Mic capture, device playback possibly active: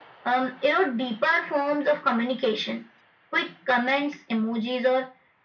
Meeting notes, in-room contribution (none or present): none